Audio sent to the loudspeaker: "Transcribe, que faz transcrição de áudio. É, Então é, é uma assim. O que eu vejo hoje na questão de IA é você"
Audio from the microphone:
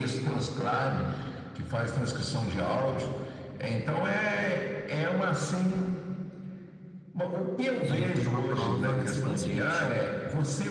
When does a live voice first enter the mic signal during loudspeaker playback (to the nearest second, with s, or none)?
8 s